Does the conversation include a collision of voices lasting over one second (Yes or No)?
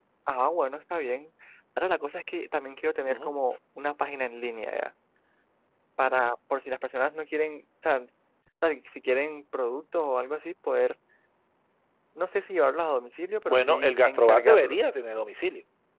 Yes